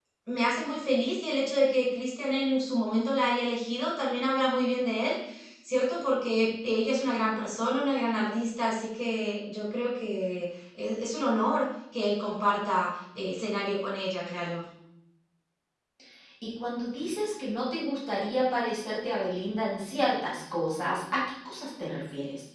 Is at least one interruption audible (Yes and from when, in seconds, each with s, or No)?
No